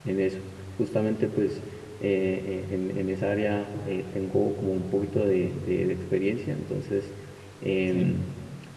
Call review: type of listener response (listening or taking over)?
listening